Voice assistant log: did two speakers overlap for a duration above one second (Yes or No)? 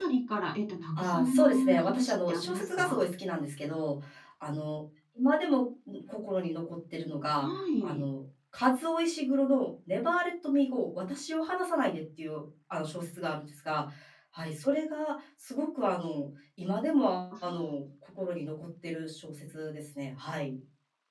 Yes